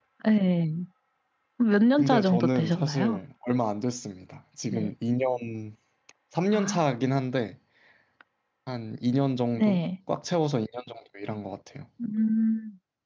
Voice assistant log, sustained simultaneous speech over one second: present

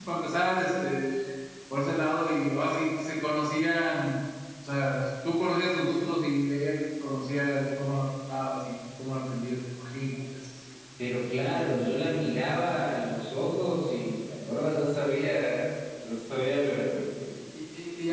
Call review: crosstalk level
none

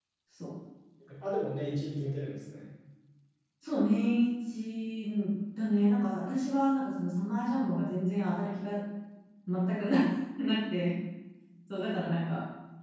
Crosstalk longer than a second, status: none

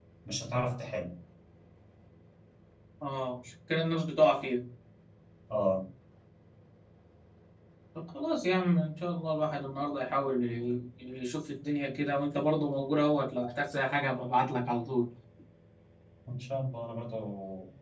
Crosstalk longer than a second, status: none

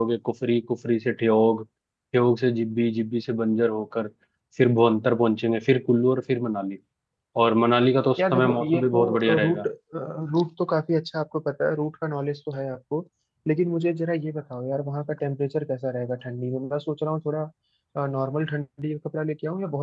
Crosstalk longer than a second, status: present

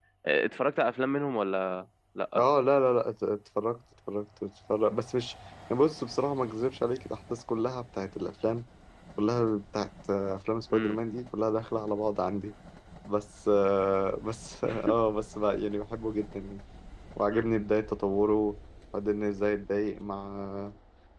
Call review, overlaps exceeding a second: none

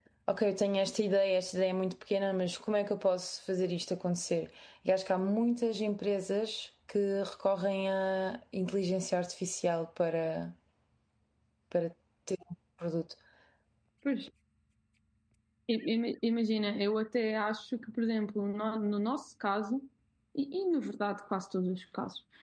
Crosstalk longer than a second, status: none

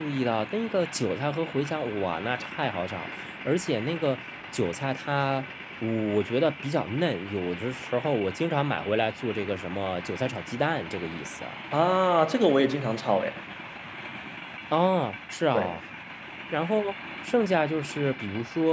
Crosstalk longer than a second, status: none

